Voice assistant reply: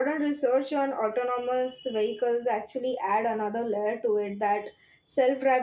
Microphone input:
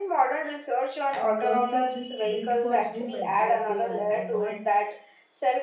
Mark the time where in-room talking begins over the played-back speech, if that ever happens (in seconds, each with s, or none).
1.1 s